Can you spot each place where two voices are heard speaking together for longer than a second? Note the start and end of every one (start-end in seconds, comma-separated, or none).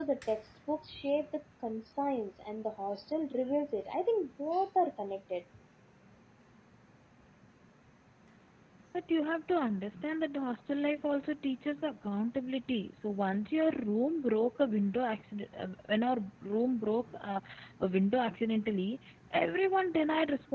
none